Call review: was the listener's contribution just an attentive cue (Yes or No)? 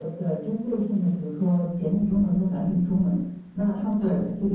Yes